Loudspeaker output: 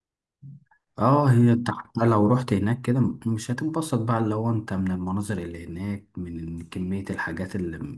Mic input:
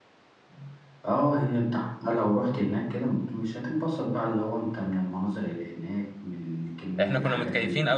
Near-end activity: present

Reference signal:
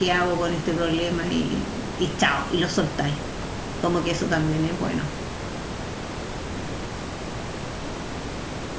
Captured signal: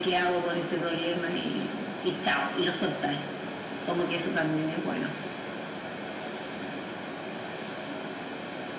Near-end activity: none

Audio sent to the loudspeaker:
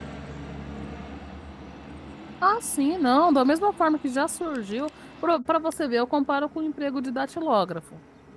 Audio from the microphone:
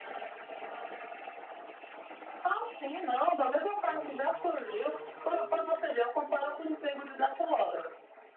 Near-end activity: present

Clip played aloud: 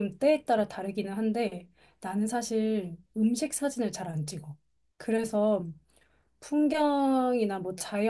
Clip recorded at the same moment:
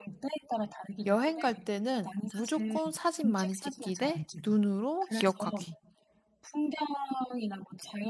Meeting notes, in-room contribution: present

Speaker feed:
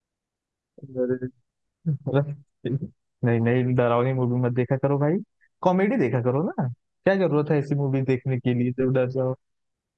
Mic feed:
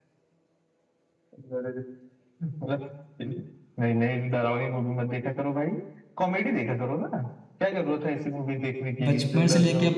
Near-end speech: present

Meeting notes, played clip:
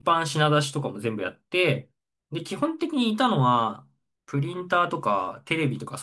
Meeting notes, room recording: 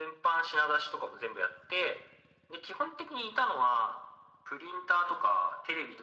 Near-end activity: none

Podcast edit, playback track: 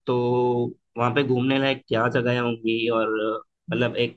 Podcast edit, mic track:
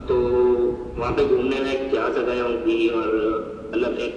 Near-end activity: none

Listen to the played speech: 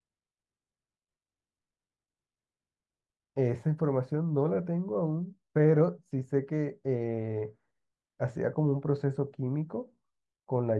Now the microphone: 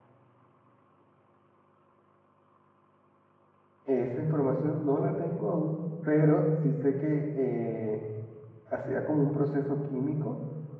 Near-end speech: none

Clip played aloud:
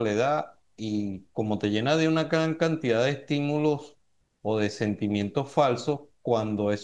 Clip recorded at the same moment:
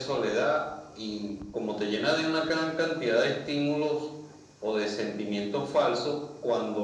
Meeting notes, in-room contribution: none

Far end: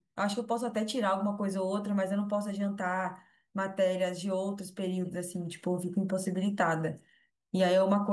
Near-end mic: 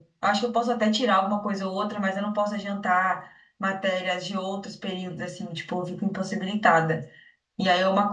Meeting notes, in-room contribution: none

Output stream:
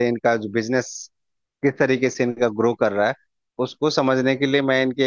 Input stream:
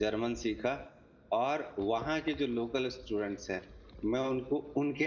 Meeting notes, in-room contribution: present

